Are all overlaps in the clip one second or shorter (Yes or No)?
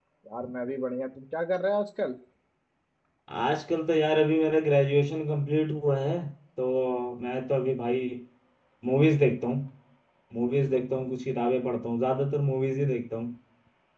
Yes